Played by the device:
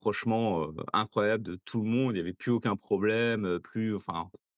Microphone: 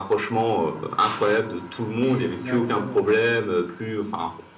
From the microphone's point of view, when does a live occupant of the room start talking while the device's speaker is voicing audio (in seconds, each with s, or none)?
2.0 s